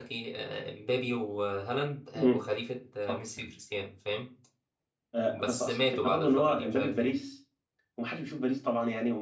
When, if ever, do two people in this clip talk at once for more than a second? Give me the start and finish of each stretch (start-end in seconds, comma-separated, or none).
5.4-7.1